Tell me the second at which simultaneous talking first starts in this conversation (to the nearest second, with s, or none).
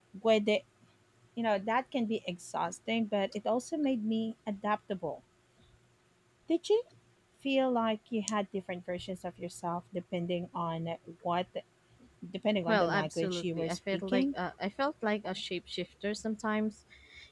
13 s